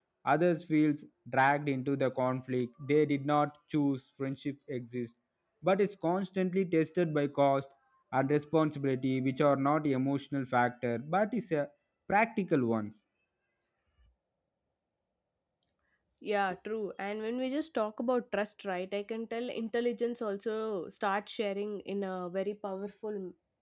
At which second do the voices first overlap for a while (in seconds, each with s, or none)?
none